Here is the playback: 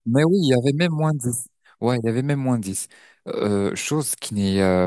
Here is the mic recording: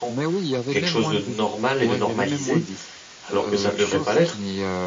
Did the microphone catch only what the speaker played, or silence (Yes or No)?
No